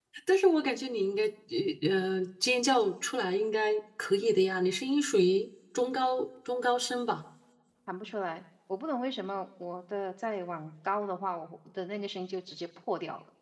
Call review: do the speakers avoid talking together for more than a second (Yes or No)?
Yes